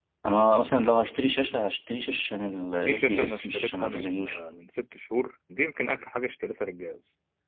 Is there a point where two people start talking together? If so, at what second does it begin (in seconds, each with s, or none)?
2.9 s